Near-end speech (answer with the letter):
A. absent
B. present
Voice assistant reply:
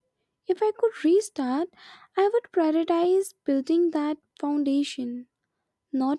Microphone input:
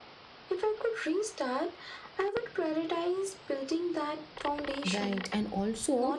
B